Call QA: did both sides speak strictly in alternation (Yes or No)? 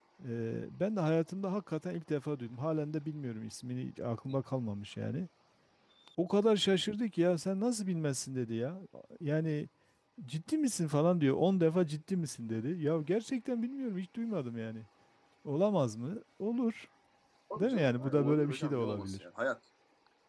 No